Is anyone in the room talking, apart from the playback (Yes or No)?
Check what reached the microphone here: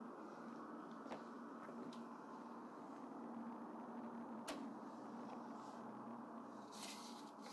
No